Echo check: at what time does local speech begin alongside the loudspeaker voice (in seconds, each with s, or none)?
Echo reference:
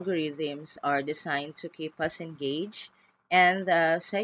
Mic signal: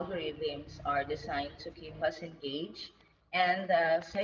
none